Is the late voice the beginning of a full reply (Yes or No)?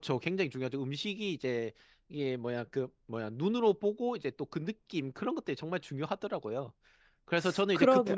No